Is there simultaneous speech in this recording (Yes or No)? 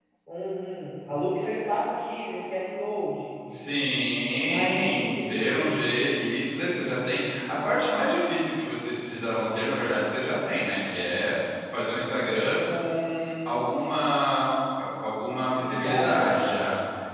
Yes